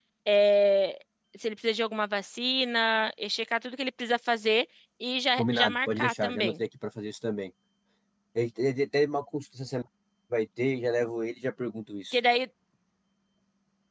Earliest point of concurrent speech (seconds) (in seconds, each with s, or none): 5.4 s